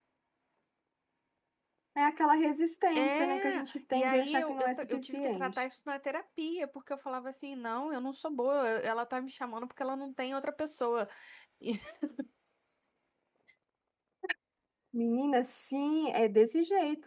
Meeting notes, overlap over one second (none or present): present